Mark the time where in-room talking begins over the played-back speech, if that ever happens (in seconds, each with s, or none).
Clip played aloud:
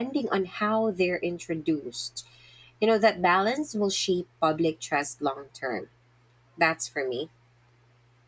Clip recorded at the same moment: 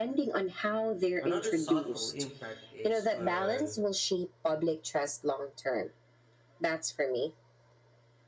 1.2 s